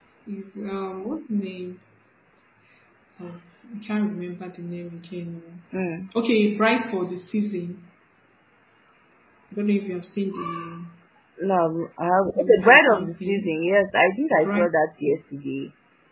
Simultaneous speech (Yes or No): Yes